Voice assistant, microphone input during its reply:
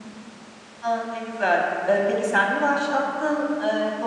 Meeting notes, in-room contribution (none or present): present